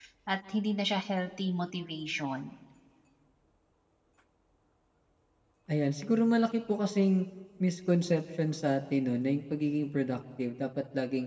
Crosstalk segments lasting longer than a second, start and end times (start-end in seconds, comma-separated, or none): none